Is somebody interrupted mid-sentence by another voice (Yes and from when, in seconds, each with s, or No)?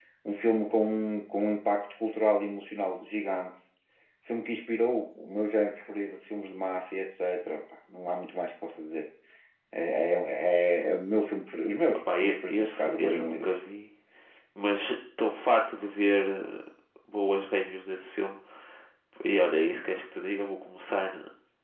Yes, from 12.1 s